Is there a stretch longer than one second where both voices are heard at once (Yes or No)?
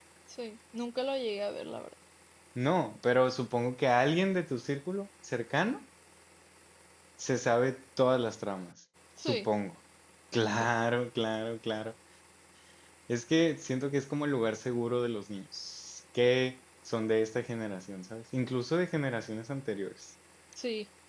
No